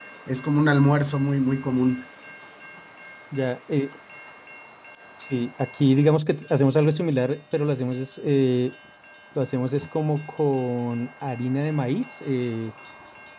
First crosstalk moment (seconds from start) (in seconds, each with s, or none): none